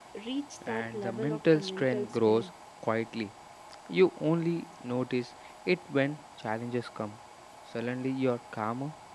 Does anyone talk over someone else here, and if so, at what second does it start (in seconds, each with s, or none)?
0.8 s